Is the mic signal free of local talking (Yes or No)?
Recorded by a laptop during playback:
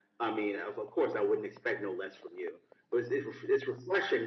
Yes